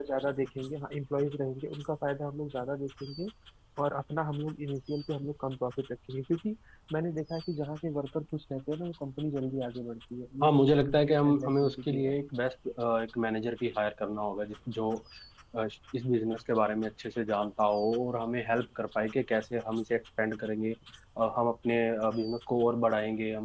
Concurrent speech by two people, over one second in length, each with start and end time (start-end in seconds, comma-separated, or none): 10.4-12.2